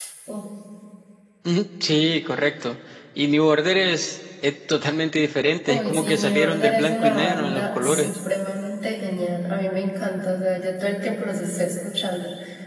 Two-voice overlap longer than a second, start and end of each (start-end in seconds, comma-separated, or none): 5.7-8.1